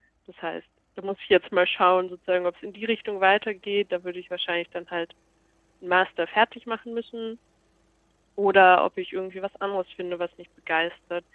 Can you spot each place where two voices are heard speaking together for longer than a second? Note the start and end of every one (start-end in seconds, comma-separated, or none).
none